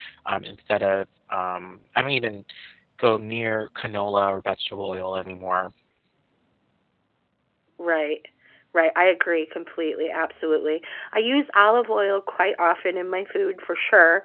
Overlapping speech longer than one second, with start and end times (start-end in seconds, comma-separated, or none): none